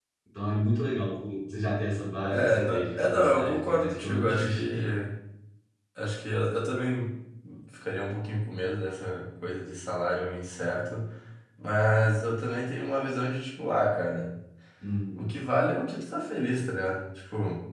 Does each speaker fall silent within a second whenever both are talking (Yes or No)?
No